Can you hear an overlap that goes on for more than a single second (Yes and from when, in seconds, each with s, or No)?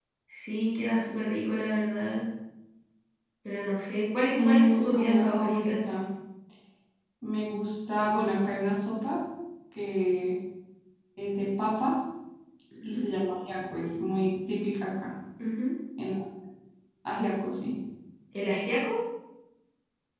Yes, from 4.3 s